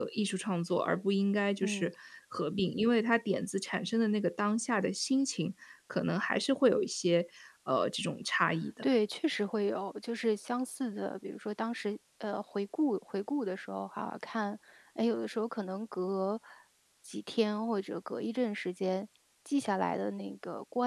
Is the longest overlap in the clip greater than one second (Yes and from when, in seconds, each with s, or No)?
No